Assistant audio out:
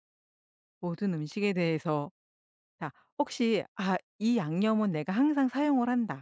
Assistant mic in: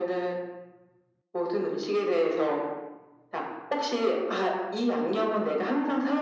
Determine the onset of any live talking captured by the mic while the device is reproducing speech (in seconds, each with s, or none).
none